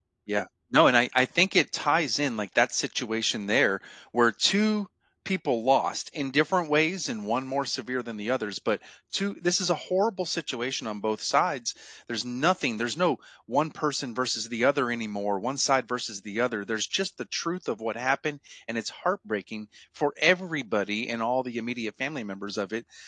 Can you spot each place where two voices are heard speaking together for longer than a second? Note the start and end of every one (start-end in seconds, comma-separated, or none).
none